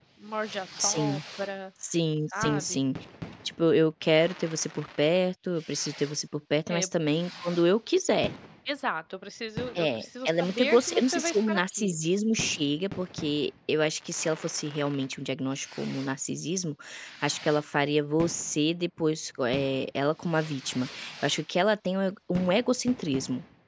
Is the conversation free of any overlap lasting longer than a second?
No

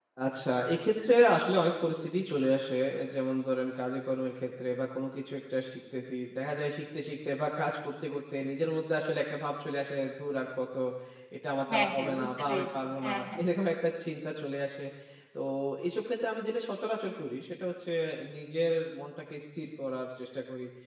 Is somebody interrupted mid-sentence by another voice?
Yes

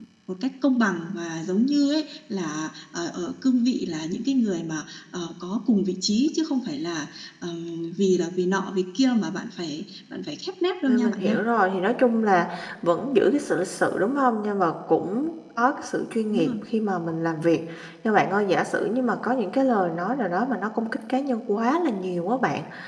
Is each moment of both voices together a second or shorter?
Yes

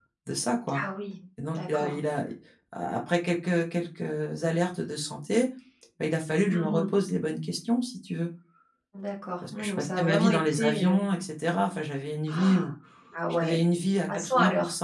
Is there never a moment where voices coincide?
No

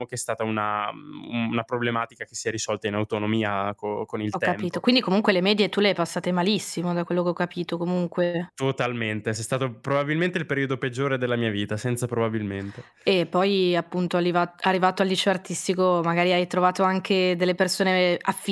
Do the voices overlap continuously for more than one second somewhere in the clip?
No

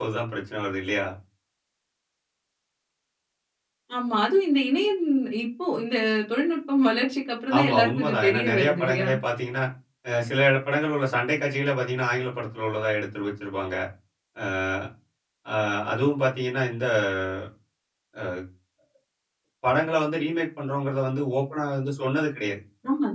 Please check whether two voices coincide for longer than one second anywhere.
Yes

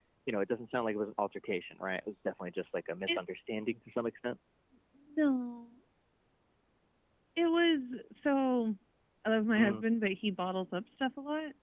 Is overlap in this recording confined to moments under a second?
Yes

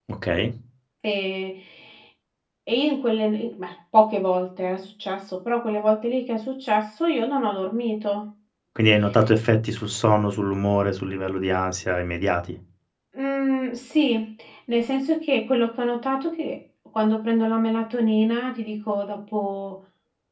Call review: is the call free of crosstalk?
Yes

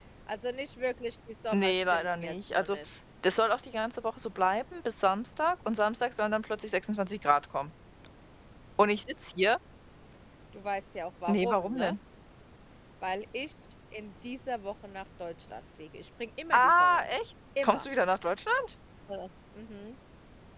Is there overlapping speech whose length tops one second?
Yes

